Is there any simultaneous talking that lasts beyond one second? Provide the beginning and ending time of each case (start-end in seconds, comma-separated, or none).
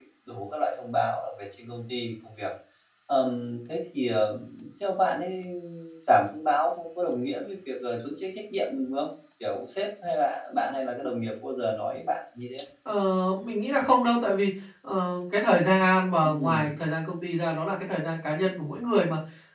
none